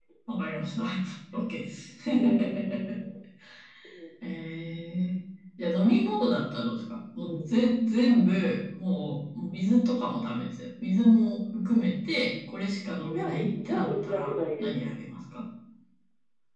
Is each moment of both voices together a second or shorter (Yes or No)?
No